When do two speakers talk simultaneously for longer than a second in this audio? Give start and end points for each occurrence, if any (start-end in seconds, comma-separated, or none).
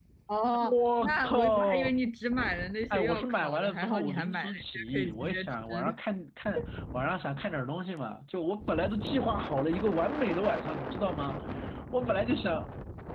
0.6-2.0, 2.9-5.9